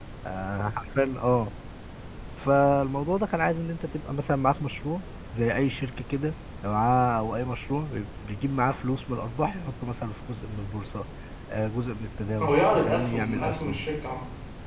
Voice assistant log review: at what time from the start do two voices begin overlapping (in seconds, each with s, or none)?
12.4 s